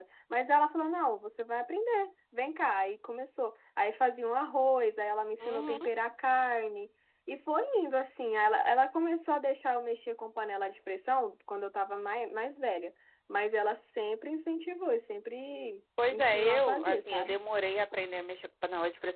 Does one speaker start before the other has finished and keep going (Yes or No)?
Yes